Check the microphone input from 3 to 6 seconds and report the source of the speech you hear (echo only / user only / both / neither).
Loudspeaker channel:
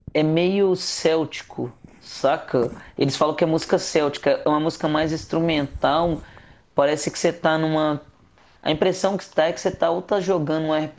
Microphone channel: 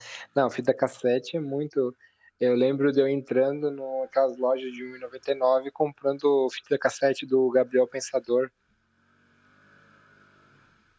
user only